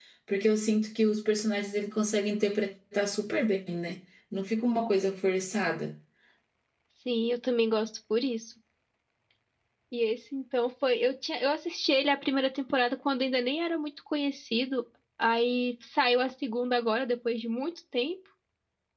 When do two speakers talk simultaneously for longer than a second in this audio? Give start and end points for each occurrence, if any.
none

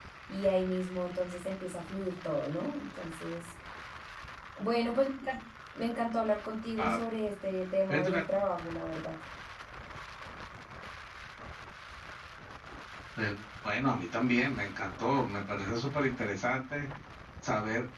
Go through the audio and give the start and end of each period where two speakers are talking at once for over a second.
none

